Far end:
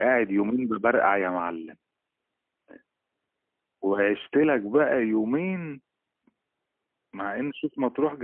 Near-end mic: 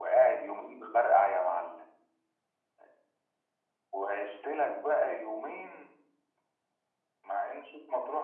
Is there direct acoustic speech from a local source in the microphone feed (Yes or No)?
No